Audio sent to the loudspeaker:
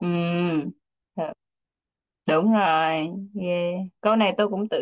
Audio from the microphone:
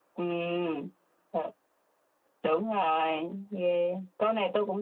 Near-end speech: none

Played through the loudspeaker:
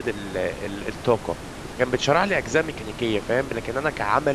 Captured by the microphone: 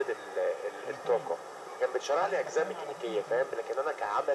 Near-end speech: present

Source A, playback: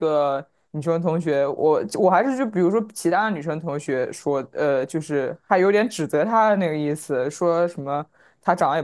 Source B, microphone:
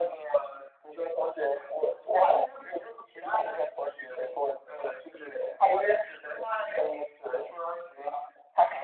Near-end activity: none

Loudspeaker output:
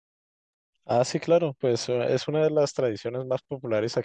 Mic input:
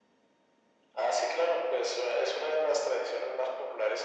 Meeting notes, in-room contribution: none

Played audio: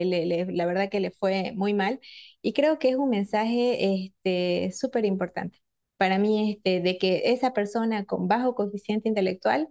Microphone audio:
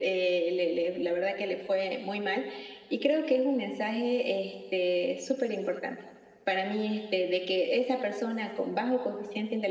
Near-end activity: none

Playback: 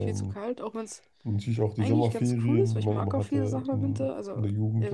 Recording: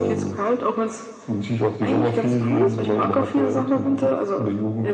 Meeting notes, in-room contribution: none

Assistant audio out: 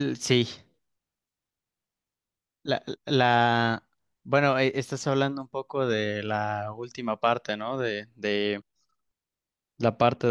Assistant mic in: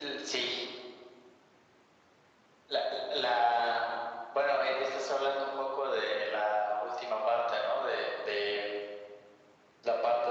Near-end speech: none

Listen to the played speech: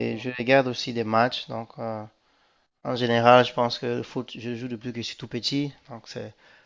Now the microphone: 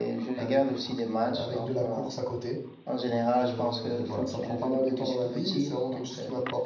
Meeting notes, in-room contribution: present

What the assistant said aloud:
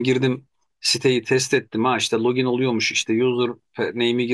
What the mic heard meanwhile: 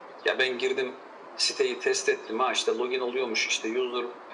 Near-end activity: none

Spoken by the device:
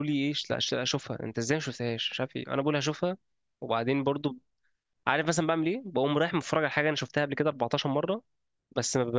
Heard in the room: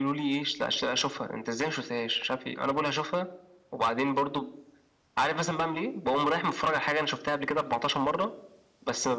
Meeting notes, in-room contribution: none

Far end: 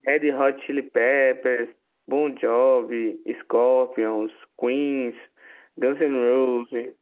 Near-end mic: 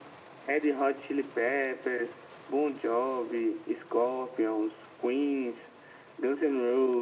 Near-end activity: none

